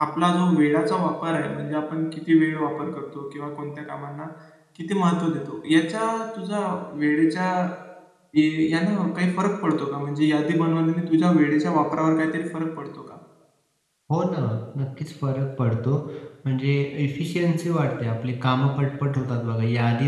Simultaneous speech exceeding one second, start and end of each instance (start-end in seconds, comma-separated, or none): none